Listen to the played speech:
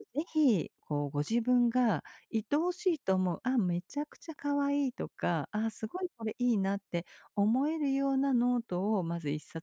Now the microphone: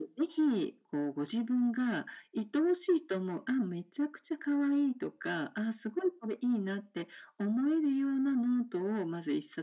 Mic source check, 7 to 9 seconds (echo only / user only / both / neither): echo only